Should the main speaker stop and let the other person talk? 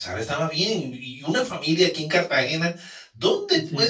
No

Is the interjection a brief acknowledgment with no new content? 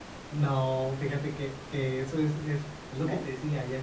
Yes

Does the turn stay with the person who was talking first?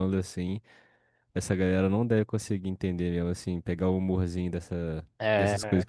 No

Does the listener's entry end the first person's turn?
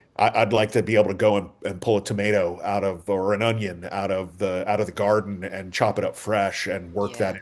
No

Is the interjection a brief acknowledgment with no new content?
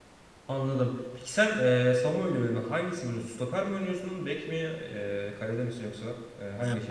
No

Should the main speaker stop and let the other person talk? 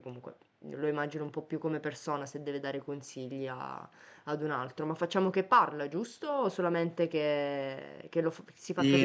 Yes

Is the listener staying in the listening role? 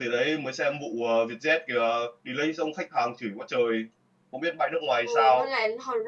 No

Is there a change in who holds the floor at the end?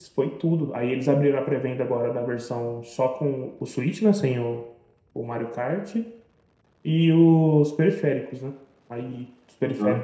No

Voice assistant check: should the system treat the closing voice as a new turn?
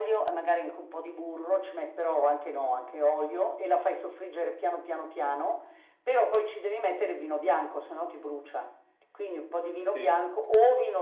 No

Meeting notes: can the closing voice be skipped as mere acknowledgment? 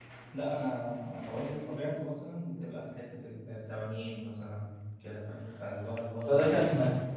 No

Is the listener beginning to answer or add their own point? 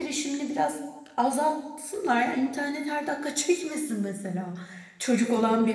No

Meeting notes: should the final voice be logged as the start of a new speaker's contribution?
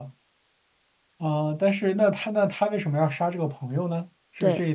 Yes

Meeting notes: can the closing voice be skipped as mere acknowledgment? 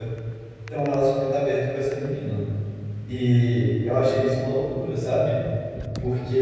Yes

